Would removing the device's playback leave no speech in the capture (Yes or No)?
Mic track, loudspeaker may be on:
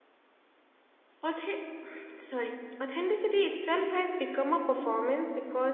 No